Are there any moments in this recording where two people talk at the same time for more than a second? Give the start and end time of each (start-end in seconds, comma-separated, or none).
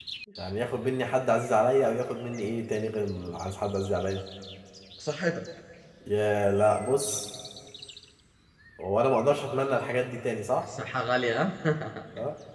none